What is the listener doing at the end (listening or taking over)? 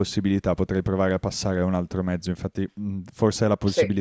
listening